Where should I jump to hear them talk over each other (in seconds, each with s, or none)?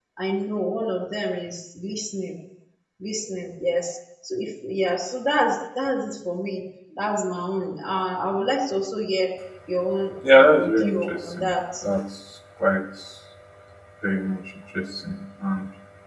10.3 s